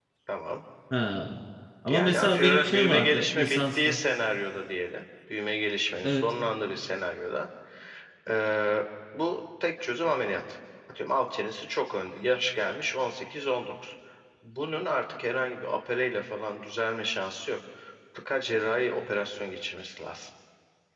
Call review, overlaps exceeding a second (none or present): present